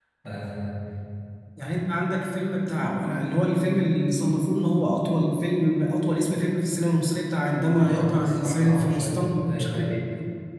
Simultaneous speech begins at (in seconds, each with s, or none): 7.8 s